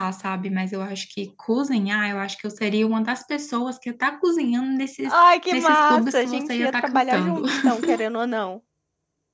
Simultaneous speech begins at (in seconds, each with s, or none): 5.0 s